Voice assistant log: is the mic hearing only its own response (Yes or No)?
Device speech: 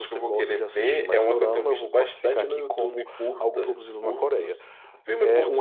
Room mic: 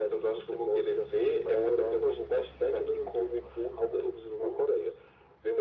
Yes